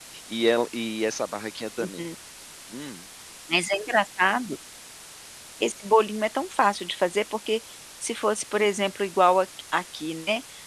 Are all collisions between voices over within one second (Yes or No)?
Yes